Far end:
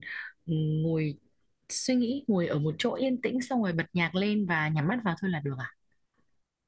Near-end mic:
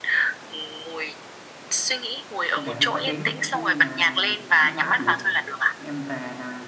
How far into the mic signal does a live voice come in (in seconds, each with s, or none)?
2.5 s